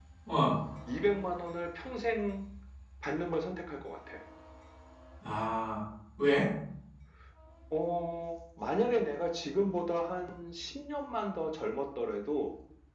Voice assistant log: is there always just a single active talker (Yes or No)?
Yes